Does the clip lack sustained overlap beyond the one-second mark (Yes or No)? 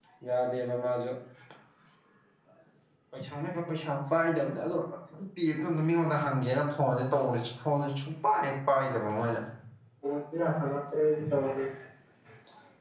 Yes